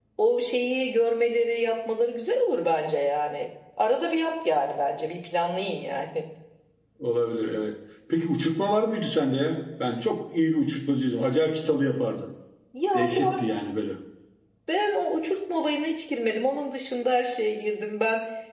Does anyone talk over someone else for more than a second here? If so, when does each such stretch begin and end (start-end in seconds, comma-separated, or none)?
none